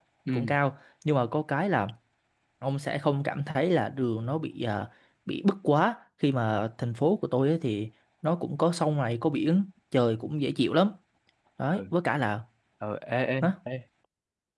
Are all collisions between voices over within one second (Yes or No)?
Yes